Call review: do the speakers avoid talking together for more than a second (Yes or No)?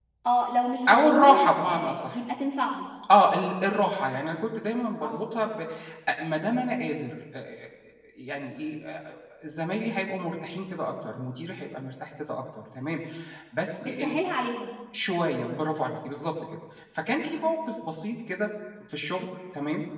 No